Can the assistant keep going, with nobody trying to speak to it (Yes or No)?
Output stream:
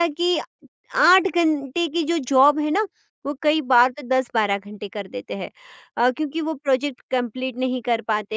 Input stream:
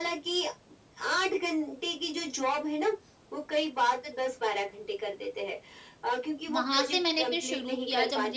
No